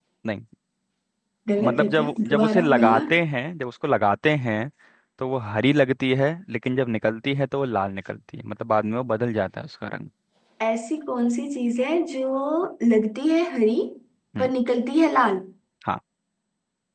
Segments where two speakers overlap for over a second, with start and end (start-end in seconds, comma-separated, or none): 1.6-3.0